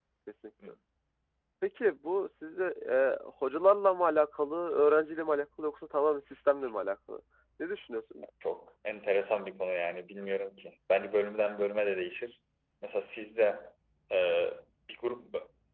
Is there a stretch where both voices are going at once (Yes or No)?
No